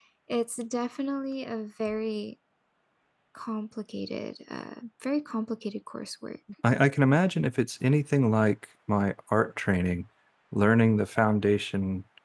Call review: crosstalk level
none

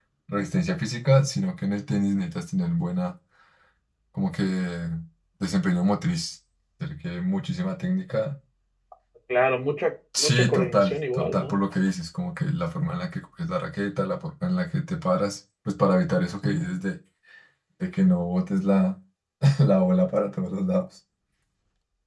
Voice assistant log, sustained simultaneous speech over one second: present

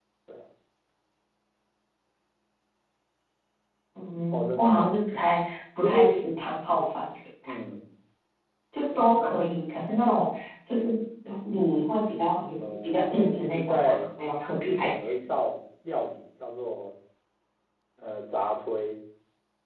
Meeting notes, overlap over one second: present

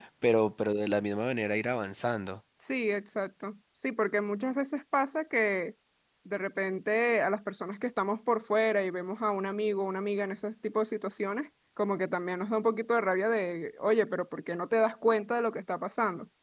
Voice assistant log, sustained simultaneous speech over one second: none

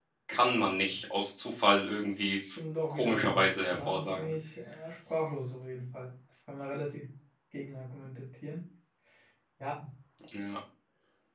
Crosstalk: present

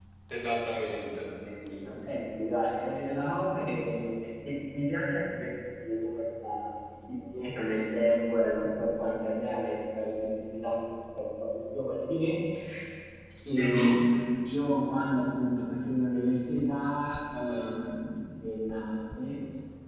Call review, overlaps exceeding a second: none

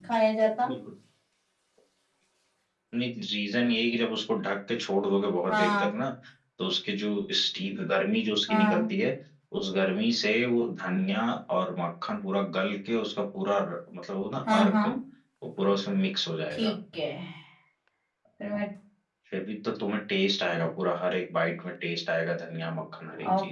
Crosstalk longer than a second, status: none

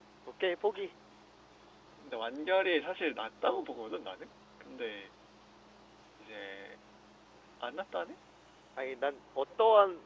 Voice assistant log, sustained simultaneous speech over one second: none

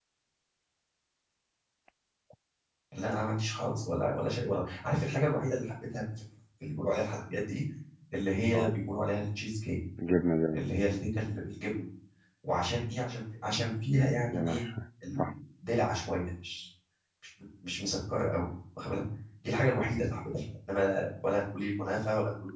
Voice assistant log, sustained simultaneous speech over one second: none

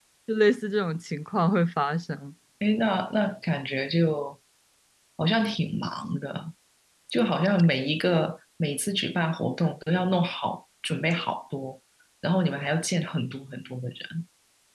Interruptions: none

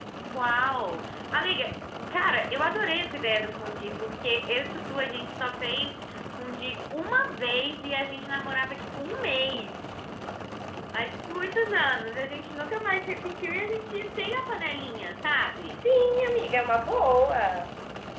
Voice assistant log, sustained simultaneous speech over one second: none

